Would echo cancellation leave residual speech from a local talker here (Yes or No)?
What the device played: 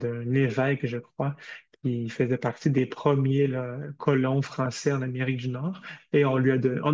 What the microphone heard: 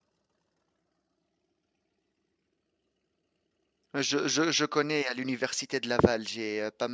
Yes